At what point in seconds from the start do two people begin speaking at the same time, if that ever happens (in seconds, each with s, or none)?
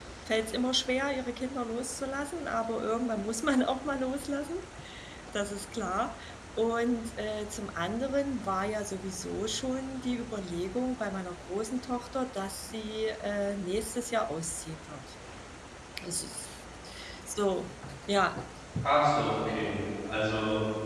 none